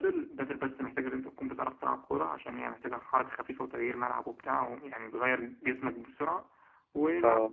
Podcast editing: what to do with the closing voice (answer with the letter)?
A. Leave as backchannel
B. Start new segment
A